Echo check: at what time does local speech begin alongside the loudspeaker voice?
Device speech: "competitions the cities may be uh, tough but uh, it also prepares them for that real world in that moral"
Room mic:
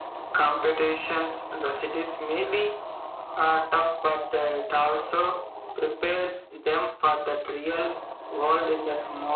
none

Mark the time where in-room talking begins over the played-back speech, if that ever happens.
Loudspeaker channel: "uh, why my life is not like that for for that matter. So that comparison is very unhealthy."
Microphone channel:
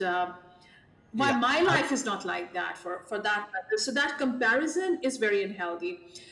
1 s

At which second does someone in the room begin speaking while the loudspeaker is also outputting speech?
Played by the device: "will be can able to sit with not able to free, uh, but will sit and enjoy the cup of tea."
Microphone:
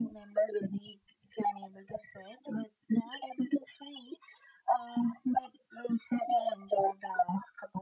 none

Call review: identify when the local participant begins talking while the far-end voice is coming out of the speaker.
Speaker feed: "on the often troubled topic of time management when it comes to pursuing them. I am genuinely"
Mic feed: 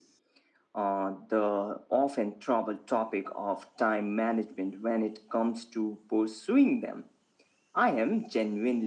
none

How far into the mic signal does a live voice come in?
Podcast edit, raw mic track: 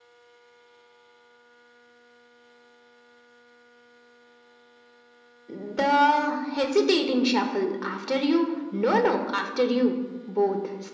none

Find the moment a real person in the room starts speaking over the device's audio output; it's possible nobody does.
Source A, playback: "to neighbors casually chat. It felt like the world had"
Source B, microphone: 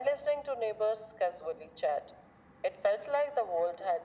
none

